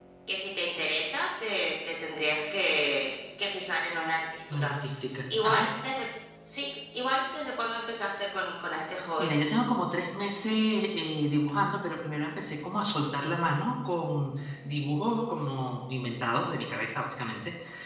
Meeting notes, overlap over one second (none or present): none